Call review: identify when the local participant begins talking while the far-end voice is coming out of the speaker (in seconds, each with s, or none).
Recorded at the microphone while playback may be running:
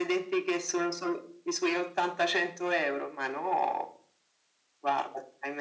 none